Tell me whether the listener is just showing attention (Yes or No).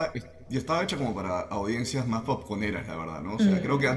Yes